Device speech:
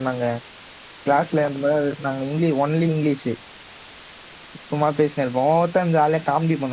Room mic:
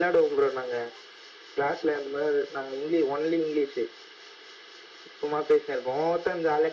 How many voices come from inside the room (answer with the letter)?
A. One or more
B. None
B